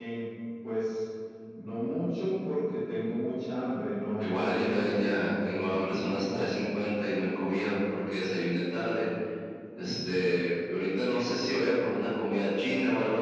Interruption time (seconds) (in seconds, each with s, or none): 4.2 s